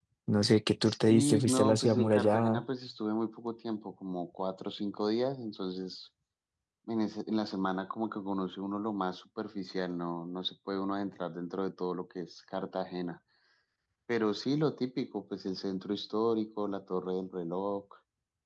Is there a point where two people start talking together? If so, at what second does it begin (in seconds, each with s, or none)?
0.8 s